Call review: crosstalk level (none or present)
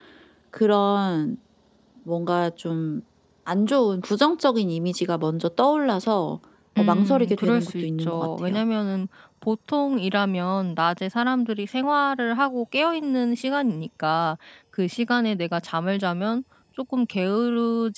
present